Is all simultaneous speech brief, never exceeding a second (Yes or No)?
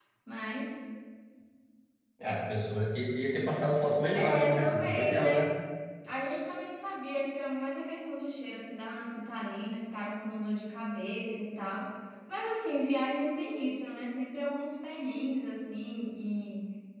No